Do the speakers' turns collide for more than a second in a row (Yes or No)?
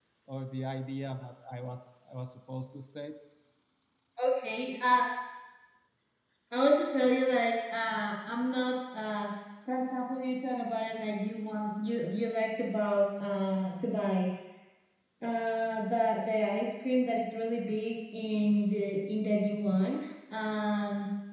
No